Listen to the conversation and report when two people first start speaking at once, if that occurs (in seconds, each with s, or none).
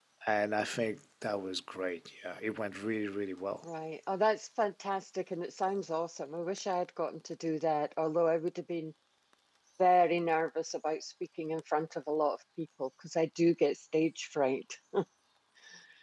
none